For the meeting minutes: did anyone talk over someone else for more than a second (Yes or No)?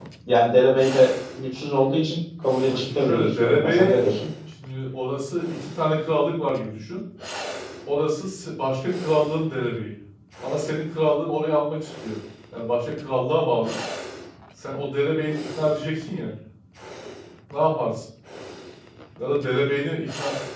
Yes